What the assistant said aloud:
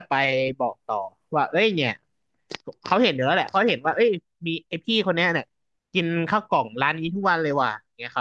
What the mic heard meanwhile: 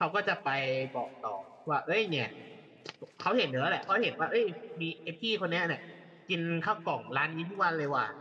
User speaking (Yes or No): No